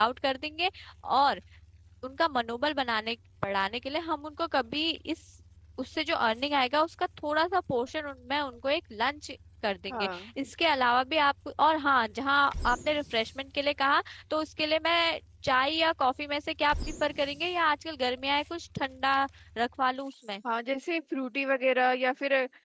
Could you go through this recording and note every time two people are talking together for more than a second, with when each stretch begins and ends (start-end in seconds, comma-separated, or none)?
none